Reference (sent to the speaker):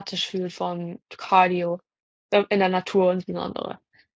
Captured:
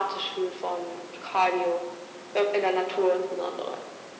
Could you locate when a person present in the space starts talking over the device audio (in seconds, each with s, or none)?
none